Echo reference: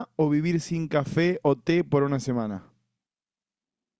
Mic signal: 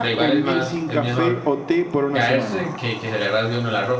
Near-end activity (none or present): present